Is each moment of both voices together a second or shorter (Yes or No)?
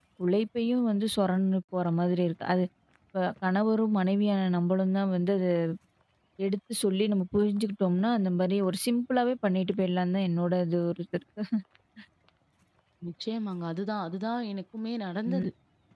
Yes